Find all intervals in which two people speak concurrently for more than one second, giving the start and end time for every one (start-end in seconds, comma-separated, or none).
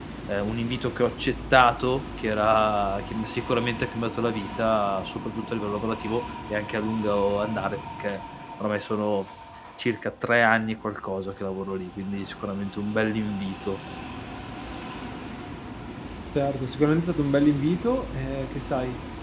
none